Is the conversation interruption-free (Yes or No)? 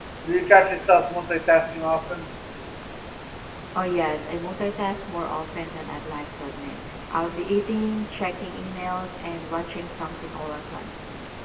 Yes